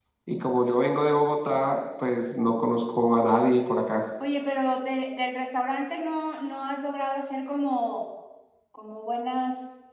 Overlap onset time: none

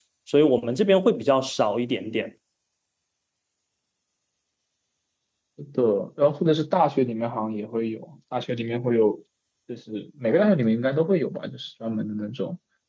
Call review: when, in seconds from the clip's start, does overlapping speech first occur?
none

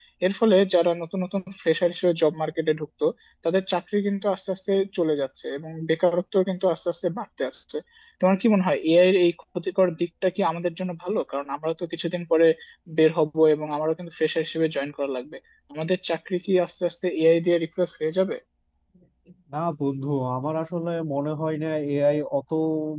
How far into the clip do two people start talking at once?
none

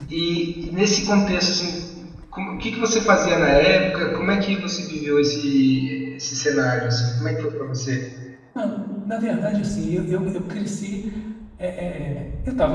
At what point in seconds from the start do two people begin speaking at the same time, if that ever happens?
none

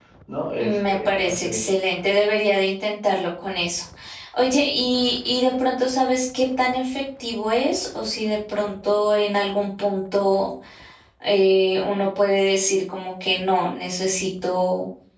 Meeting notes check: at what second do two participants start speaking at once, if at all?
0.6 s

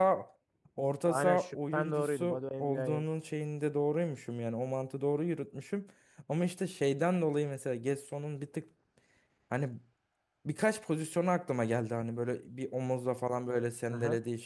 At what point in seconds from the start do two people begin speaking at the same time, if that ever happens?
1.0 s

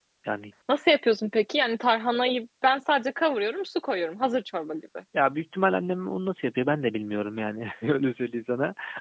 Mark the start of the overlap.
none

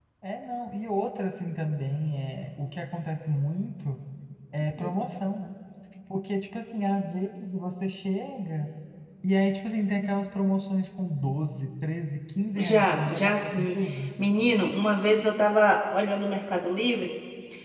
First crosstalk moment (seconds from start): 12.6 s

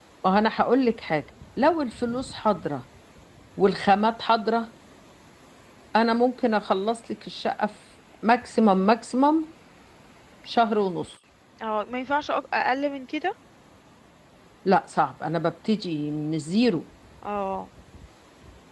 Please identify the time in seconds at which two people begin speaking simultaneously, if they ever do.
none

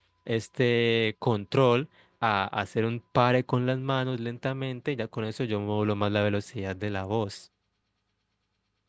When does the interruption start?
none

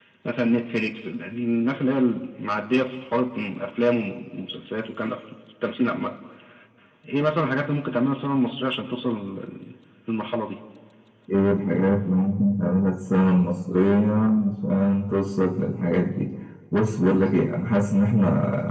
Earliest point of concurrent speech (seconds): none

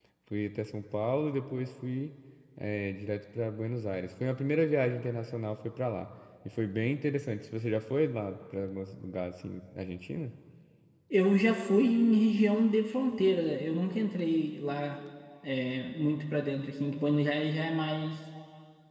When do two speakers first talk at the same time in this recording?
none

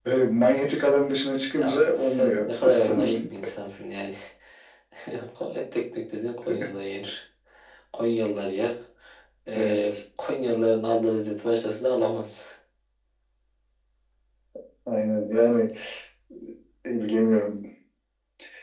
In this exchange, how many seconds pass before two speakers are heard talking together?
1.6 s

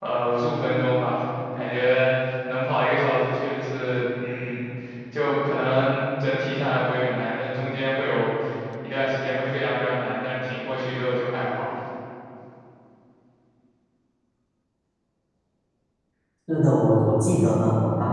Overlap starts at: none

